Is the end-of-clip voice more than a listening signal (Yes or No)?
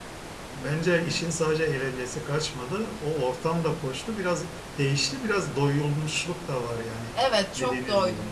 Yes